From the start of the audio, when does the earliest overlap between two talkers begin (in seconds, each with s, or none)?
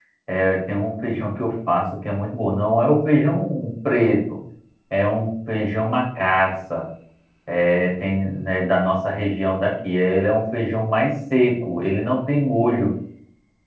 none